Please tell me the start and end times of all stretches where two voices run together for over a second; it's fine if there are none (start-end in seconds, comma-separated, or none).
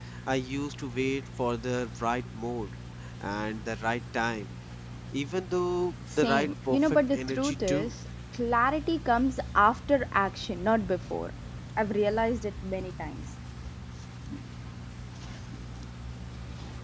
6.2-7.9